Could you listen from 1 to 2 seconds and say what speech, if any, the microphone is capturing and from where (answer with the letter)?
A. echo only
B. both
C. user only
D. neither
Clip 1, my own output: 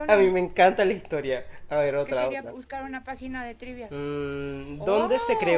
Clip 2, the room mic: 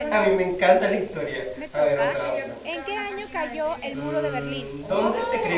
B